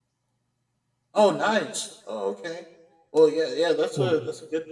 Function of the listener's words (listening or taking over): listening